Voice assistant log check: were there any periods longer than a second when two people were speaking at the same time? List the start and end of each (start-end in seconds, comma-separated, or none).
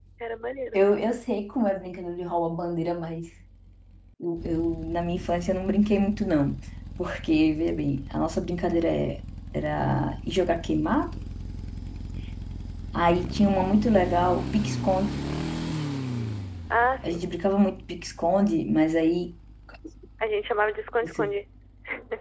none